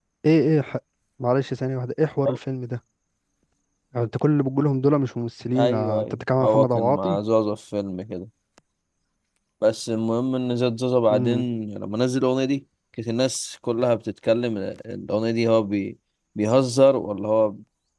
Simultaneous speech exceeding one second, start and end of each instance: 5.6-7.2

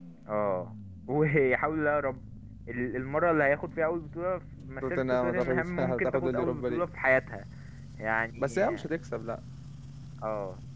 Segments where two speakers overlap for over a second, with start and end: 4.9-6.8

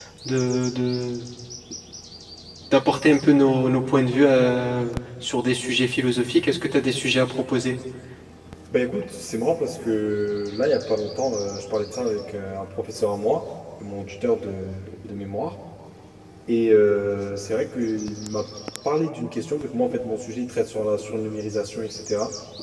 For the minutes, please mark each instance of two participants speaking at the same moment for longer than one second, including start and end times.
none

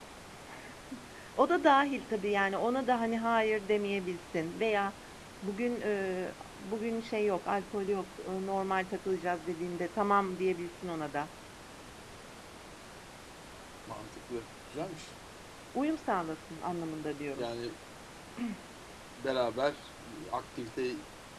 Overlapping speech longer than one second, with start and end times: none

